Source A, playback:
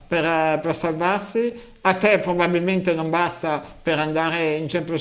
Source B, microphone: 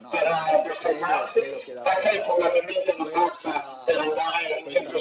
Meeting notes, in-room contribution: present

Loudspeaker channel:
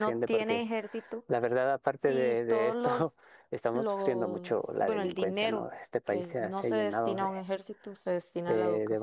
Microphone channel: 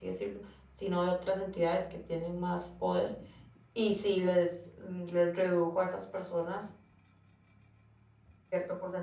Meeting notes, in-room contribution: present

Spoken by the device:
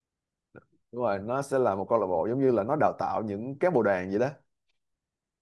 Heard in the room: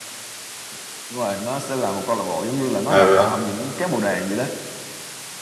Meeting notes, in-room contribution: present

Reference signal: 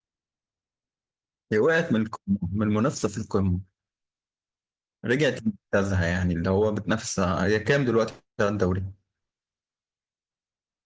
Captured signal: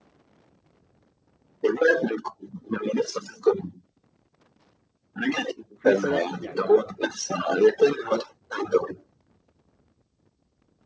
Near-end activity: present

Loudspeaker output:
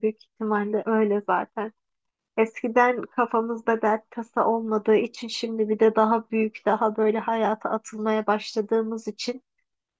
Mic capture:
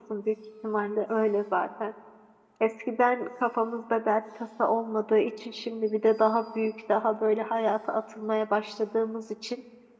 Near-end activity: none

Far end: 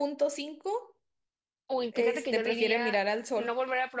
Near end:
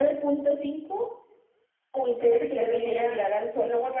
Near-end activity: none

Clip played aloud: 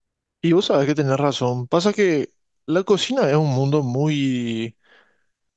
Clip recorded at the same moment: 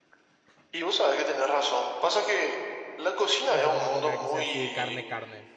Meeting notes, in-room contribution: present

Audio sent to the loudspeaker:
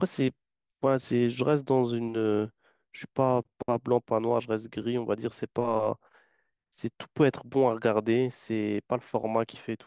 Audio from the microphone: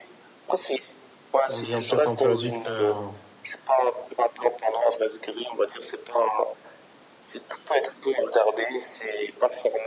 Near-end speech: present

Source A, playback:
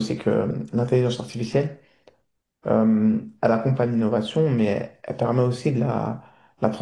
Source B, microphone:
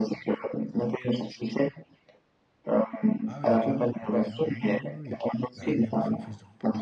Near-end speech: present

